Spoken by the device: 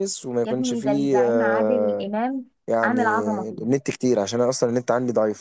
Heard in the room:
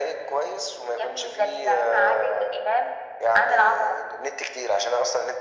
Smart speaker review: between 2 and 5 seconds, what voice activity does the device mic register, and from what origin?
echo only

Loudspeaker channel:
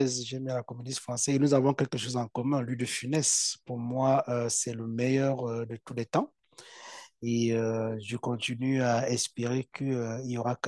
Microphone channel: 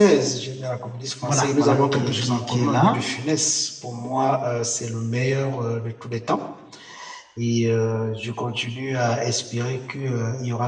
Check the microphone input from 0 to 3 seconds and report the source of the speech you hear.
both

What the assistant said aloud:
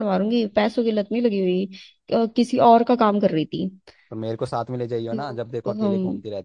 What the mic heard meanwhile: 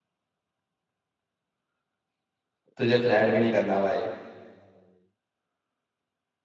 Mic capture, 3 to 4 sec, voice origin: user only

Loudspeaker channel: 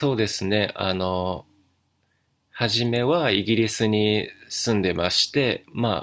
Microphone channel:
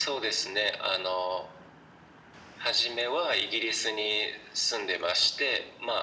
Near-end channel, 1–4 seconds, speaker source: echo only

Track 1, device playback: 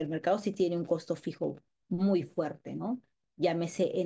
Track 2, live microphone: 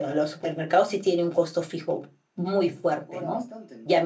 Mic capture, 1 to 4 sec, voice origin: both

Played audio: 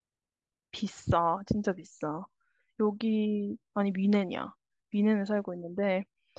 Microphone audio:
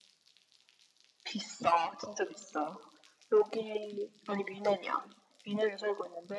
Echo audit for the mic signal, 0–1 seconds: neither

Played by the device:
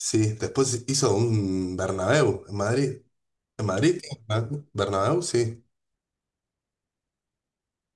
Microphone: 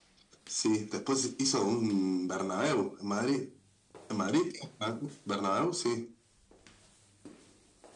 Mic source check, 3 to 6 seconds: echo only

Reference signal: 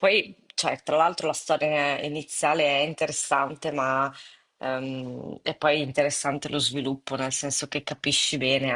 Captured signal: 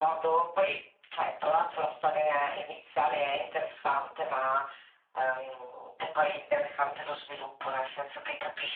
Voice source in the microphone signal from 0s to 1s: echo only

